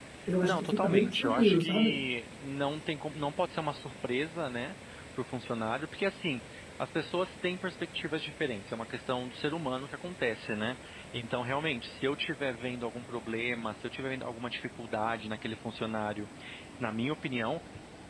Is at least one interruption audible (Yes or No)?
Yes